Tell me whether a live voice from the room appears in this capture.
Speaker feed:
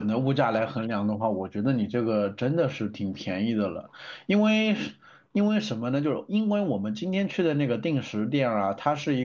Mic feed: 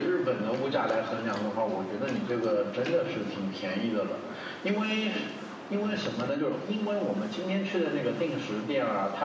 No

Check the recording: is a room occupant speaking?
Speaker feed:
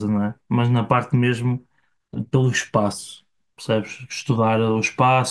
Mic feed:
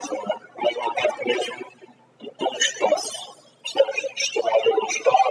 No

